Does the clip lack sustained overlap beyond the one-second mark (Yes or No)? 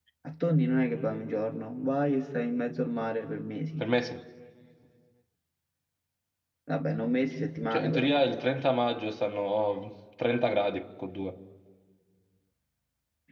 Yes